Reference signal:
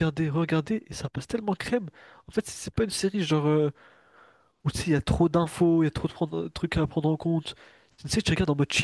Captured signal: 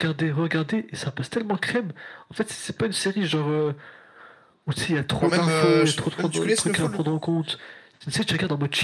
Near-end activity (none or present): present